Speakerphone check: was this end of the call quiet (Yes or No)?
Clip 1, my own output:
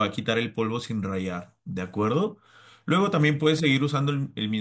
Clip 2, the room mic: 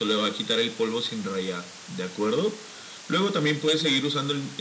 Yes